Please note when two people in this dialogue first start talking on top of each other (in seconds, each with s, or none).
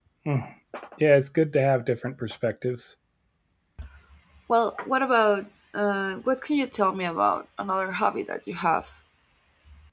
none